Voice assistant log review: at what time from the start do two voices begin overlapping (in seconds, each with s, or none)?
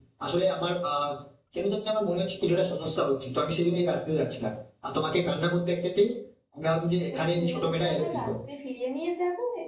7.1 s